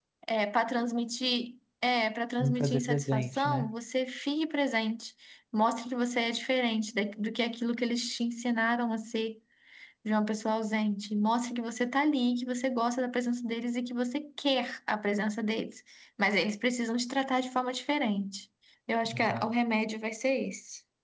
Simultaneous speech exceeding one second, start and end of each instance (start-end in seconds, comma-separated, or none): 2.4-3.7